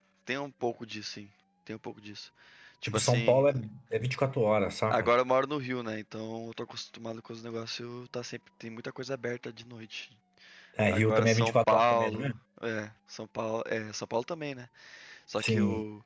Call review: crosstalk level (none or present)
present